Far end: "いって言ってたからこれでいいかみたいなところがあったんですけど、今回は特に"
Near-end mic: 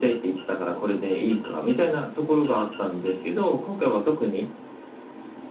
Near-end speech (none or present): none